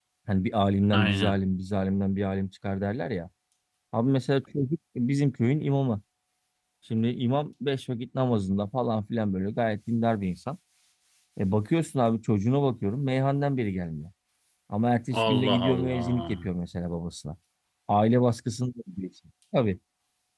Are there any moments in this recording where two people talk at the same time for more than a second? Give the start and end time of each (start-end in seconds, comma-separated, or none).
15.2-16.5